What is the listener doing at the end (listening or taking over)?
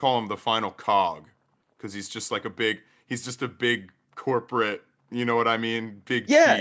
taking over